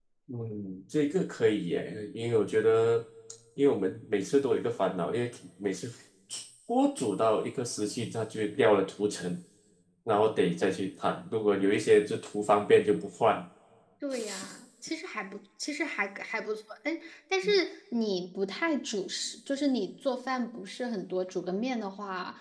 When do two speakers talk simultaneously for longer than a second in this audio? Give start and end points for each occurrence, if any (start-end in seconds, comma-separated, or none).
none